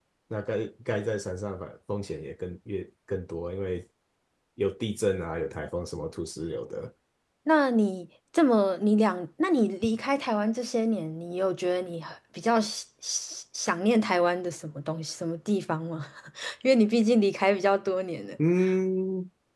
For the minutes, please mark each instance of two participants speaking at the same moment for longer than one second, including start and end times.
none

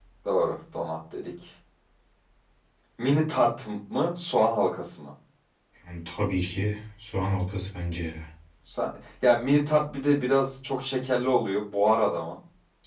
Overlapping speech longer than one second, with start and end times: none

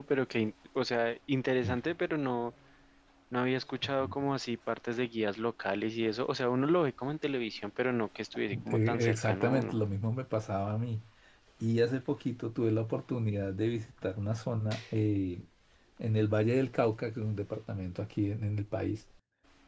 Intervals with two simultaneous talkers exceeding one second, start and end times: 8.5-9.8

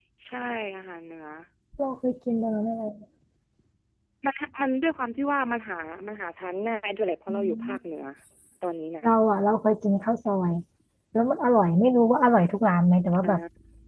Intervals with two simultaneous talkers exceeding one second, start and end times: none

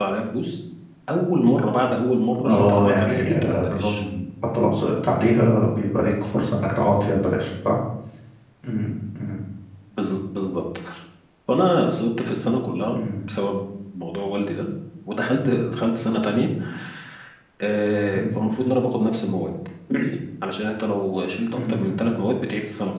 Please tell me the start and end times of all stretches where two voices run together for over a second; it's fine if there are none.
2.4-4.0

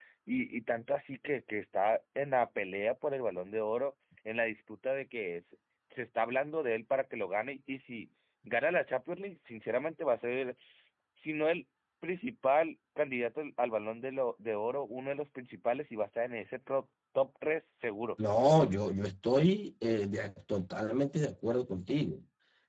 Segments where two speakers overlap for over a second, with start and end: none

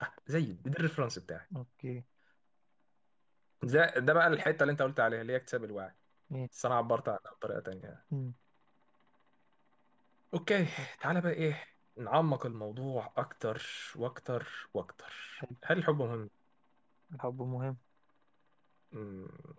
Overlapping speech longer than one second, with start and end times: none

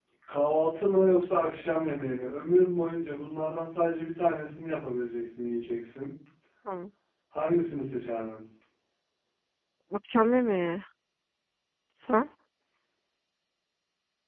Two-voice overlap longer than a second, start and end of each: none

